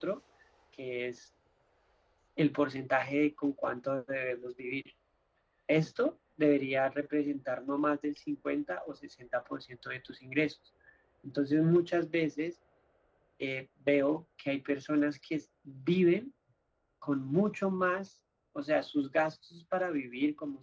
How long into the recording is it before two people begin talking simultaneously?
none

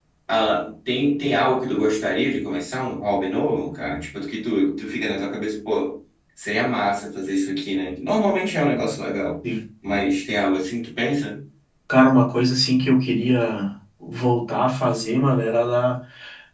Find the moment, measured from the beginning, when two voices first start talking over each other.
none

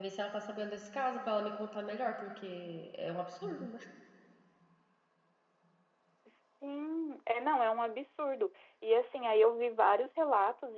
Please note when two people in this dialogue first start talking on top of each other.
none

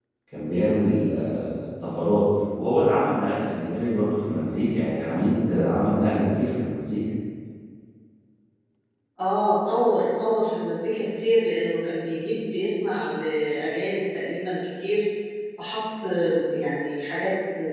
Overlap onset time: none

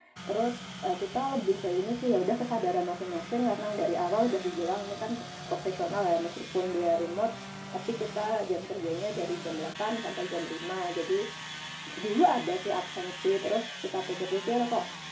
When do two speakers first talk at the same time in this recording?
none

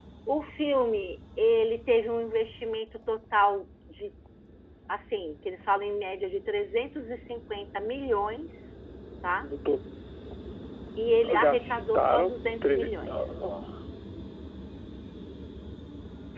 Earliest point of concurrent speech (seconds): 11.4 s

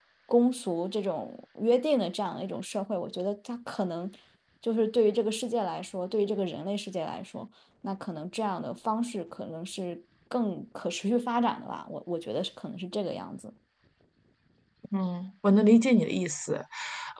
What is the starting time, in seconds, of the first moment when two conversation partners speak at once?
none

